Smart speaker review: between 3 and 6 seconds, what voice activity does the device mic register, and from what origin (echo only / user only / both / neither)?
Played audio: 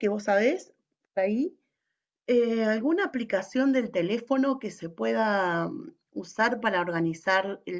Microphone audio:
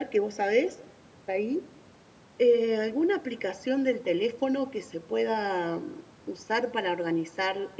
echo only